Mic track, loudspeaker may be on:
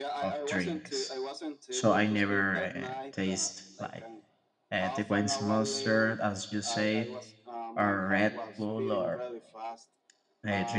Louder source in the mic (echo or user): user